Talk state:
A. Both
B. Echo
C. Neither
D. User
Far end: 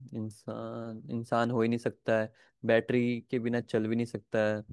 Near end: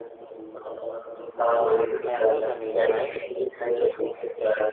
A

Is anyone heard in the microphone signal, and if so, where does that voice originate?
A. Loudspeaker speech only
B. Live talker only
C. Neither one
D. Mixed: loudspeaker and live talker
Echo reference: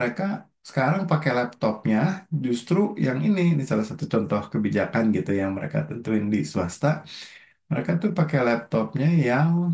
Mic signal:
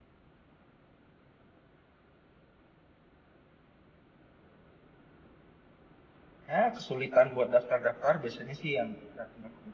B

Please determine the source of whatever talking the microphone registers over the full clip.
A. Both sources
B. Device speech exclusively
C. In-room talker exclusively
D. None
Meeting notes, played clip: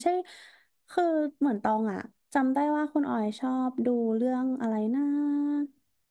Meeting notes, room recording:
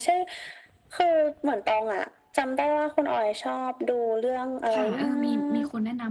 A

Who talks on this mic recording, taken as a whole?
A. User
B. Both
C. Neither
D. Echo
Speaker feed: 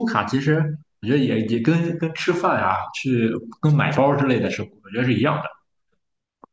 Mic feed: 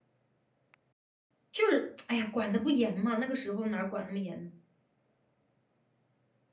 A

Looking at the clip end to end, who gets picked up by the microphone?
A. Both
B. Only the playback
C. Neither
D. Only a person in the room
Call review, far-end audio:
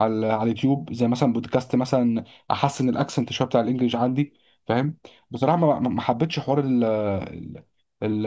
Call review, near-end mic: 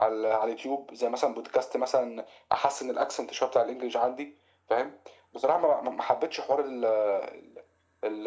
B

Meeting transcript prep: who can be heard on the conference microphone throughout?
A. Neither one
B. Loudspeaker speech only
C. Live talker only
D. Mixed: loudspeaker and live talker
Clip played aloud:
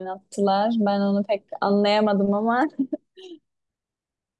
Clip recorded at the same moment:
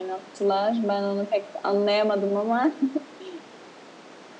B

